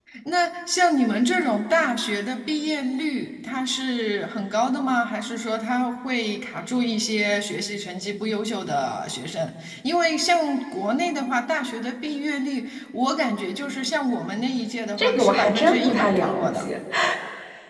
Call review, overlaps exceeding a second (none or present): present